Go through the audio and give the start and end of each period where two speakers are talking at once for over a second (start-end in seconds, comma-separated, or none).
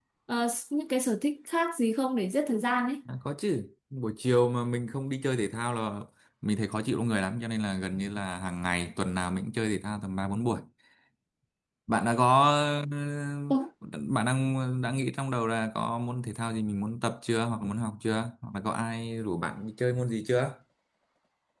none